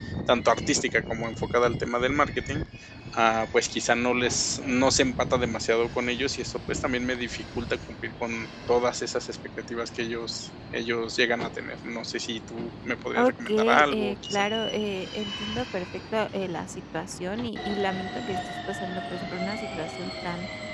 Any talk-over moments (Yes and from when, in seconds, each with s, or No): Yes, from 13.1 s